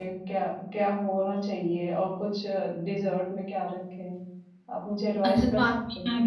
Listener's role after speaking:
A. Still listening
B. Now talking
B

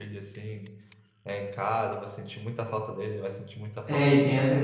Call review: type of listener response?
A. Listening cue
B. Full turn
B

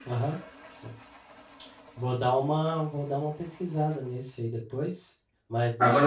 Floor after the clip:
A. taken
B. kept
A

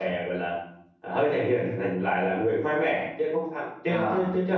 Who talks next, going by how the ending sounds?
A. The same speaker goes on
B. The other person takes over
A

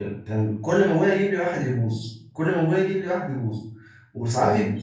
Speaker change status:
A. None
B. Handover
A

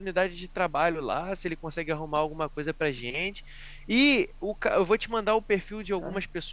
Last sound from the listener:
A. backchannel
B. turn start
A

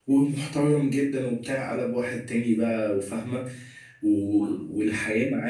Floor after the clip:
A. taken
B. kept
B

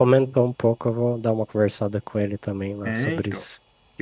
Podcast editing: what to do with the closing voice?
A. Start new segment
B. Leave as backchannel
A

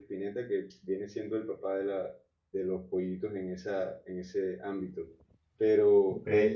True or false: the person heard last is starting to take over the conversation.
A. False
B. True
A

